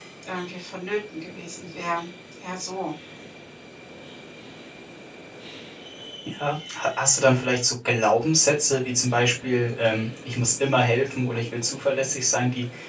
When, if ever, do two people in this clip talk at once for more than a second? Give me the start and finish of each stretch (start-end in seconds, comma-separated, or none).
none